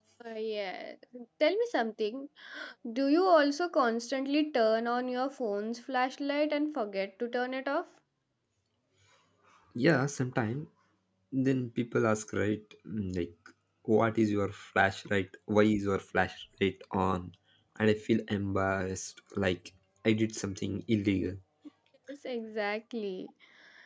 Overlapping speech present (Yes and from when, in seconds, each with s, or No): No